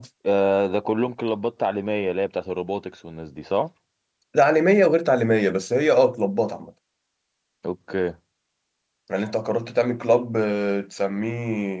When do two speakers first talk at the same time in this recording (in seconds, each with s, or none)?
none